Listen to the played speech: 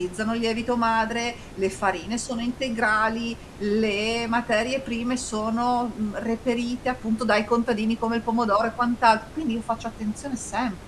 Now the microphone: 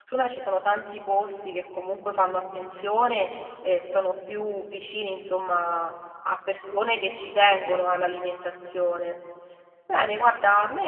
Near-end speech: present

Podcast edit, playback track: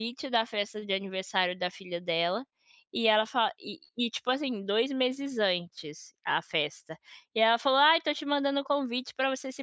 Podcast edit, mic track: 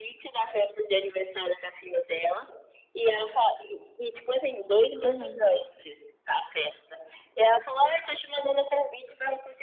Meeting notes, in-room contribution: present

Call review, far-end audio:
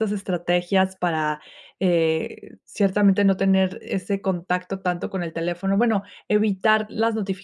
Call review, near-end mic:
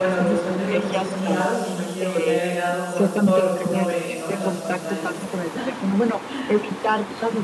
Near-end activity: present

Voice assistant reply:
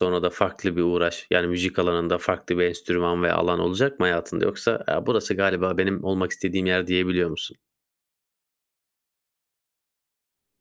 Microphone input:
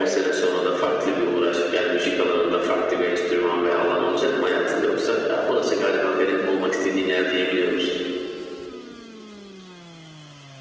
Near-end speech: none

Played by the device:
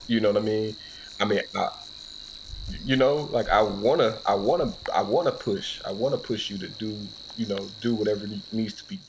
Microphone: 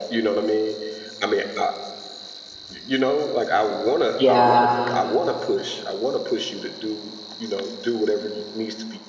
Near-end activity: present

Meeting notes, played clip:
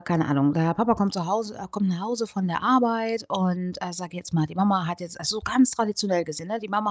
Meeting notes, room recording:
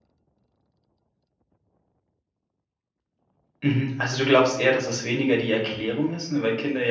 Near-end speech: present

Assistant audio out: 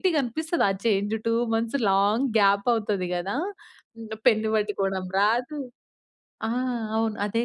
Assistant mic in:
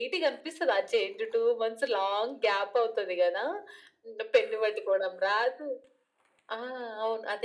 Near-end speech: none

